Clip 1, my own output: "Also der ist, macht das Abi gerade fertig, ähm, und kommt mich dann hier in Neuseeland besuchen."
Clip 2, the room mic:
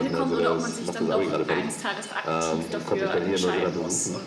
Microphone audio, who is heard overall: both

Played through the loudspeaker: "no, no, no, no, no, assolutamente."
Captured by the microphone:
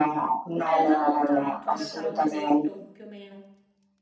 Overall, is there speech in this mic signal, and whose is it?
both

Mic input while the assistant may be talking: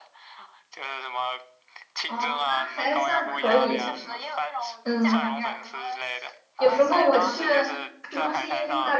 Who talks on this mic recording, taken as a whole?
both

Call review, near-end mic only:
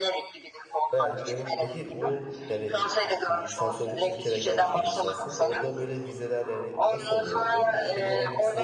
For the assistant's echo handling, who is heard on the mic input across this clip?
both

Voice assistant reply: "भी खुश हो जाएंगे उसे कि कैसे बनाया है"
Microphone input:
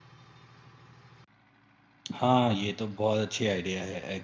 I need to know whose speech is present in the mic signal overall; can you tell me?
user only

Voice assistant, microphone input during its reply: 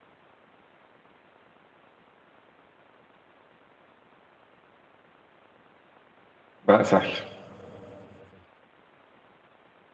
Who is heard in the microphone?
user only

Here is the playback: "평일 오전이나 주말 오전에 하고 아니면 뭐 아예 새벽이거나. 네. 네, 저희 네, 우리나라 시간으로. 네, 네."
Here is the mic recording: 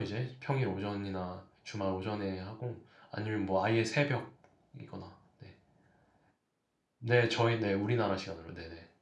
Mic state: echo only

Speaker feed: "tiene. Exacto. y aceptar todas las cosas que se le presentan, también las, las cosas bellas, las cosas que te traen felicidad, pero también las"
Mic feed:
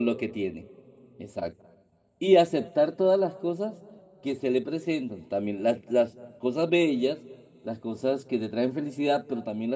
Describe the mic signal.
echo only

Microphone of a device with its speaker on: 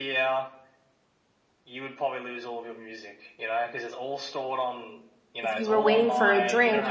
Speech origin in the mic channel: both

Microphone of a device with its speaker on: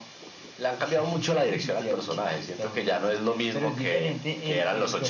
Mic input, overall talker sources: echo only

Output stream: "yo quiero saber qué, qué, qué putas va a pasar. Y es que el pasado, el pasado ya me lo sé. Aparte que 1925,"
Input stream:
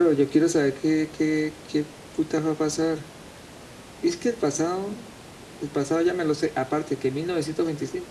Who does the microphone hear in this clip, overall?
echo only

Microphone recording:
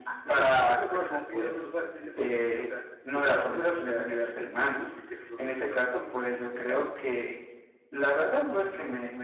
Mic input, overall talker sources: echo only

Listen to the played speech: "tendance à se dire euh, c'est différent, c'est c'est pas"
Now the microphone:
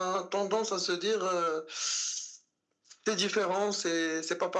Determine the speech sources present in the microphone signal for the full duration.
echo only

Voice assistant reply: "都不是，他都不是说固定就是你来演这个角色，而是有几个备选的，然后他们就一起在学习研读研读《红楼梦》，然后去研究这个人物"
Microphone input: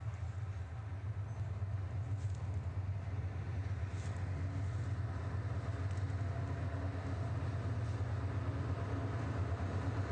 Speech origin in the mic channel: neither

